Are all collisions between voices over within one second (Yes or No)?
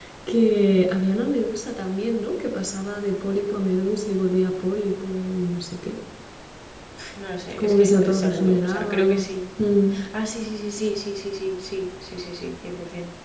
No